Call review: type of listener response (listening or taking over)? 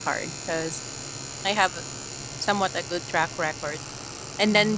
listening